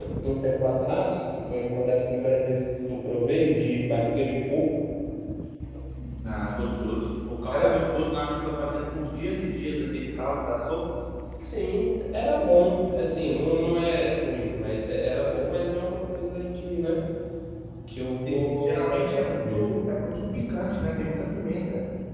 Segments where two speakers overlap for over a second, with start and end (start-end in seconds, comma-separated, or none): 18.2-19.7